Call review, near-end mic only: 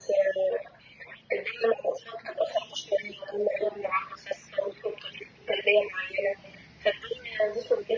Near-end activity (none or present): none